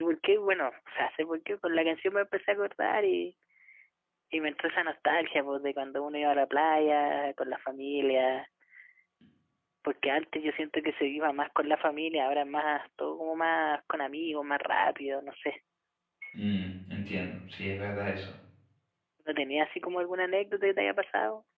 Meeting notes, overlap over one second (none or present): none